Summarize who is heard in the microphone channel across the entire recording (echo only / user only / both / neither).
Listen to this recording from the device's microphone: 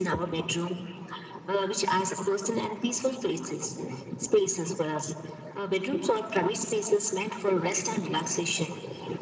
echo only